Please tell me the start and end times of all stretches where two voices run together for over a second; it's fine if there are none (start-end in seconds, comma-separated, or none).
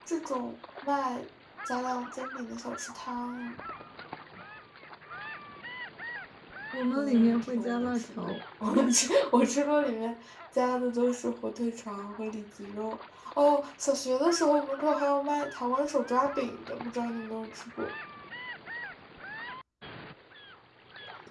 7.0-8.3